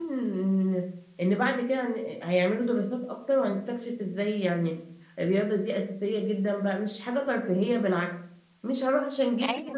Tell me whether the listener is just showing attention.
Yes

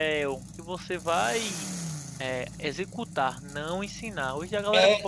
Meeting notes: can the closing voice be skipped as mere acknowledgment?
No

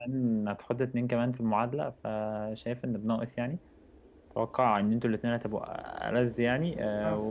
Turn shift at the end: No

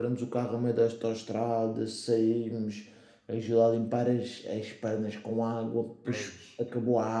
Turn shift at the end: No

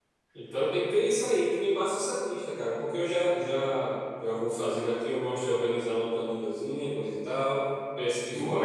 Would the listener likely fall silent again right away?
No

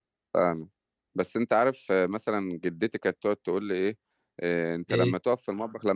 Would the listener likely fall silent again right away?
Yes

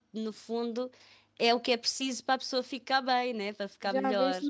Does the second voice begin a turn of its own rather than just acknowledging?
Yes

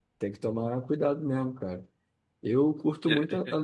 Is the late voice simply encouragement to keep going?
Yes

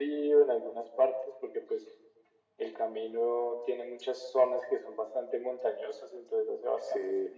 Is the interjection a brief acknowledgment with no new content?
Yes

